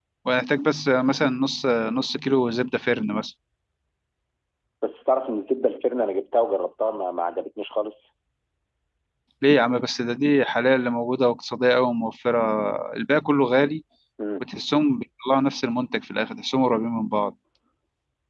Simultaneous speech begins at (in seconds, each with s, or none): none